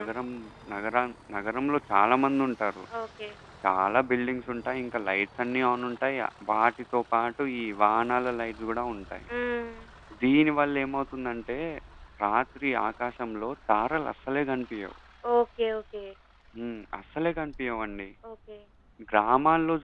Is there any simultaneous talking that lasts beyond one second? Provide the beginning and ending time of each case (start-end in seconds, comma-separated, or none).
none